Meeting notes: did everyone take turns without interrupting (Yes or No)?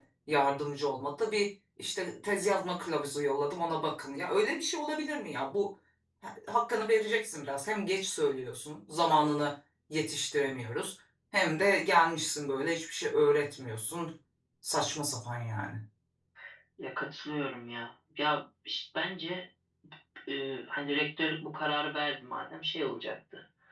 Yes